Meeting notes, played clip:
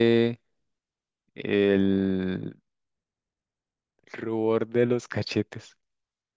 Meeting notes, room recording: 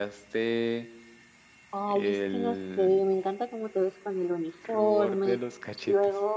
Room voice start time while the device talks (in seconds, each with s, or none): 1.7 s